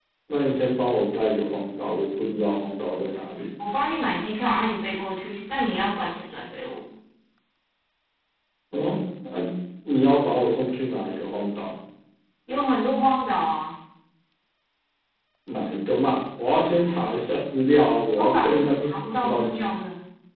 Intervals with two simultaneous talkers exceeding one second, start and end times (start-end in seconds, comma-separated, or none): 18.1-19.7